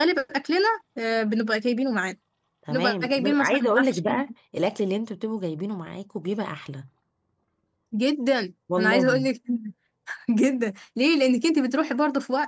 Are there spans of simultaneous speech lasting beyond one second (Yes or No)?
Yes